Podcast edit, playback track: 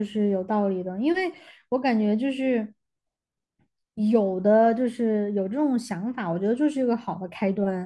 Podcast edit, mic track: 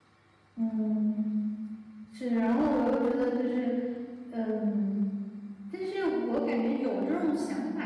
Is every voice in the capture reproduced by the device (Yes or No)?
No